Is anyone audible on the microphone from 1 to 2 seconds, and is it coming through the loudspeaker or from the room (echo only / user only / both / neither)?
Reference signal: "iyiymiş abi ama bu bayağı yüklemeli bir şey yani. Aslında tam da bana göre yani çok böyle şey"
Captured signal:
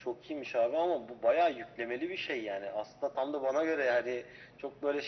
echo only